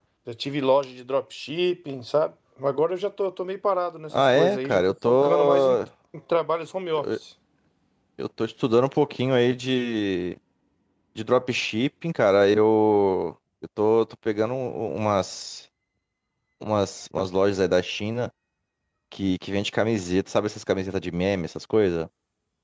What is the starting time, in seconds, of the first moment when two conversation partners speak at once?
4 s

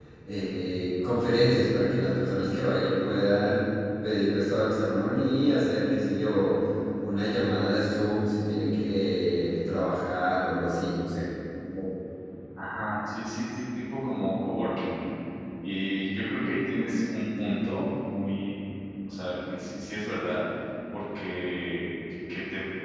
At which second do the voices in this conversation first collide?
none

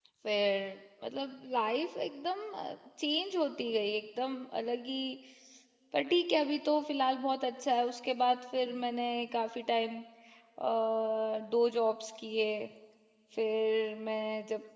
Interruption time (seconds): none

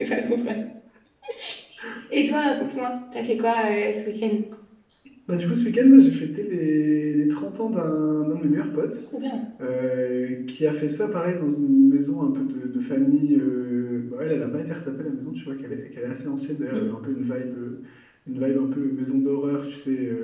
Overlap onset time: none

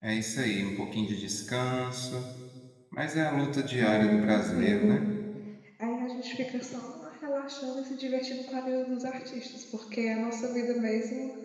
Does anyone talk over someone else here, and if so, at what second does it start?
4 s

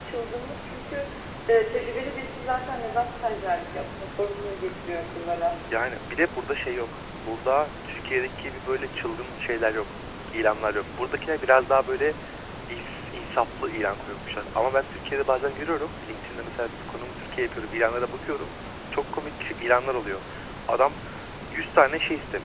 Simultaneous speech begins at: none

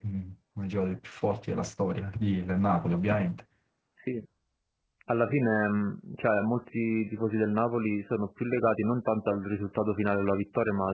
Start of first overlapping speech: none

